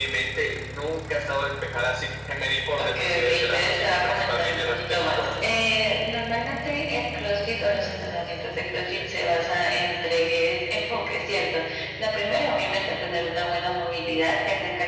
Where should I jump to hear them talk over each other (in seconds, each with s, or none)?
2.8 s